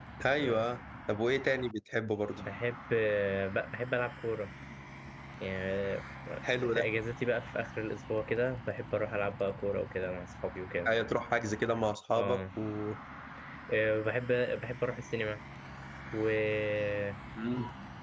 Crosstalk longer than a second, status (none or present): none